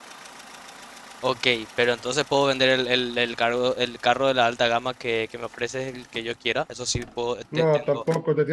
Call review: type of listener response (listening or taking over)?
taking over